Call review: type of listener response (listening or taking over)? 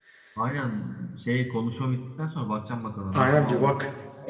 taking over